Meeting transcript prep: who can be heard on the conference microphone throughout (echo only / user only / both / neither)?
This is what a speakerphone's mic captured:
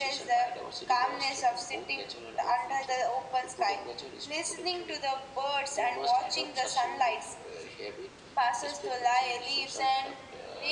echo only